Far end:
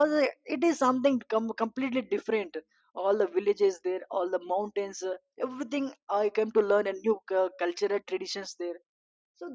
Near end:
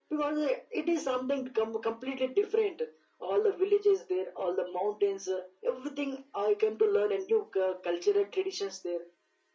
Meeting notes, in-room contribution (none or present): none